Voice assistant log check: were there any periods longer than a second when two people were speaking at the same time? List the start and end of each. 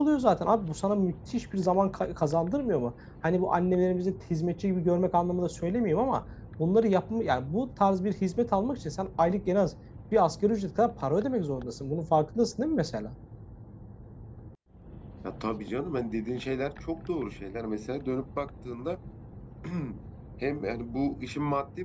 none

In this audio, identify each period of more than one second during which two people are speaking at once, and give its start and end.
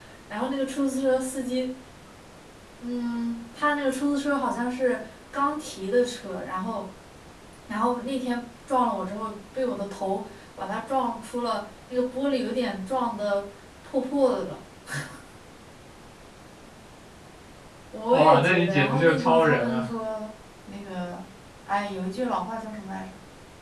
18.1-19.9

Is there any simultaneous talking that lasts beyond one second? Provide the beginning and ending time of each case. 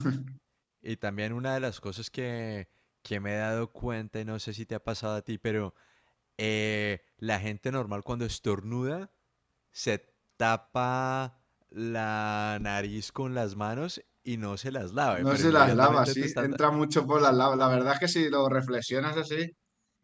15.1-16.6

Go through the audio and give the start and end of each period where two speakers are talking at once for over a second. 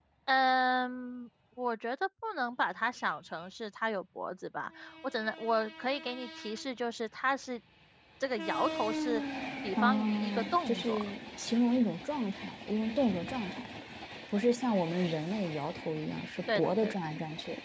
9.7-11.1

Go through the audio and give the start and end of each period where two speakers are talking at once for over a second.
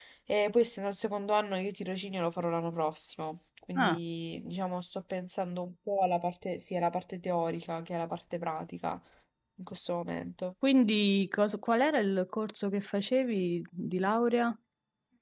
none

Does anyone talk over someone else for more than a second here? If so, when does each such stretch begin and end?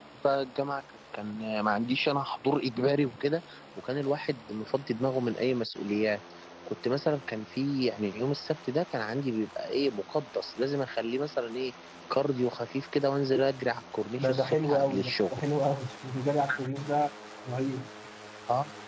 14.2-15.4

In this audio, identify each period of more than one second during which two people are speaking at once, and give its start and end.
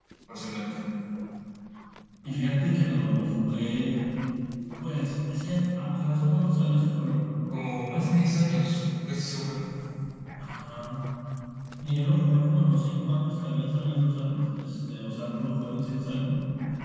none

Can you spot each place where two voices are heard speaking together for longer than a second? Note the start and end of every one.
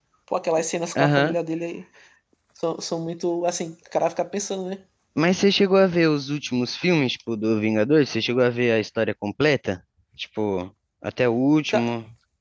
none

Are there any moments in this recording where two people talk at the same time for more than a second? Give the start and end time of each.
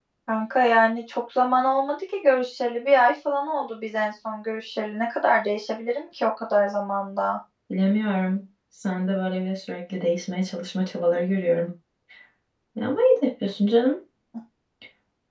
none

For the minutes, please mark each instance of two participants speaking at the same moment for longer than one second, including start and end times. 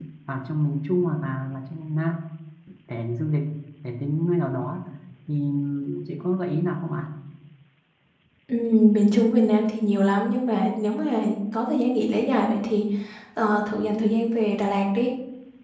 none

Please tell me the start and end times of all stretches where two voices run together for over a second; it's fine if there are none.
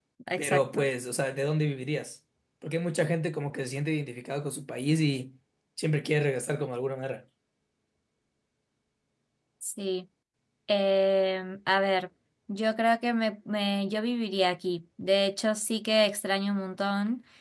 none

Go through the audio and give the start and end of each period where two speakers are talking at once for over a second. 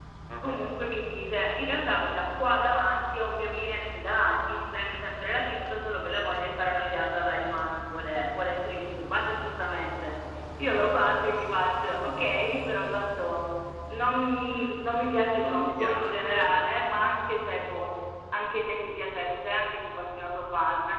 15.4-16.6

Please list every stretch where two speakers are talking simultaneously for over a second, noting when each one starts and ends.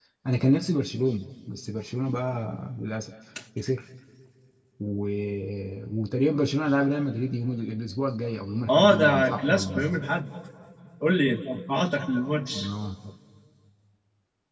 8.7-10.0

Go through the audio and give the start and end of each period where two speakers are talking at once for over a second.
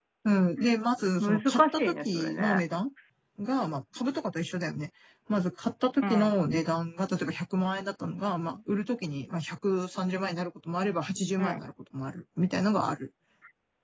1.2-2.6

